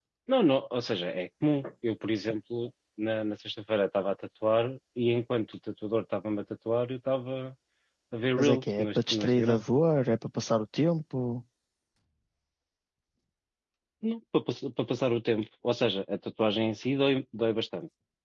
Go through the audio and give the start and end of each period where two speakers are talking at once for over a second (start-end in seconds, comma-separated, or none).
8.4-9.6